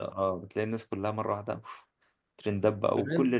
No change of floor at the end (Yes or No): No